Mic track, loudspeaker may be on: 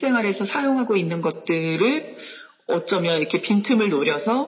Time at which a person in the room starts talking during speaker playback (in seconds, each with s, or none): none